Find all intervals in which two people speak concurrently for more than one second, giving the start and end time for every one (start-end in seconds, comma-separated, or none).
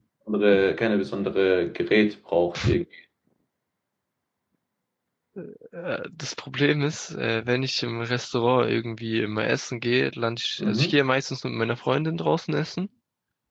none